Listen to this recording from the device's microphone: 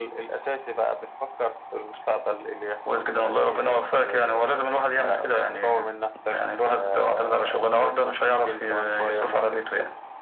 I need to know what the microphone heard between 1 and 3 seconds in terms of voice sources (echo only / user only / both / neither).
echo only